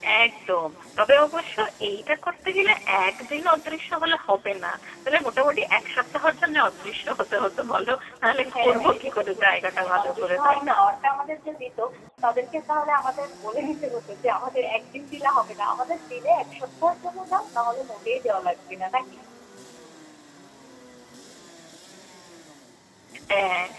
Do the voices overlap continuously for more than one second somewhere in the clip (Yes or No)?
Yes